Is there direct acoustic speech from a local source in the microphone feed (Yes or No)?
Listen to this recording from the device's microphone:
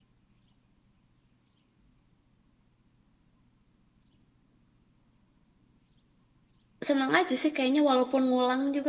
Yes